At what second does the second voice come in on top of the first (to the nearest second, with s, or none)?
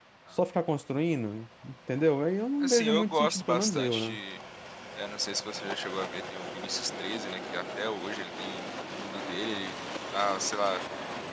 3 s